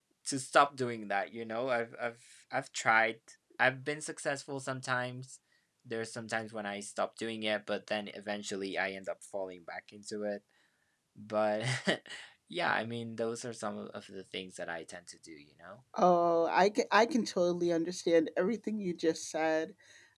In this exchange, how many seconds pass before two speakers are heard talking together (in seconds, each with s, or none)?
none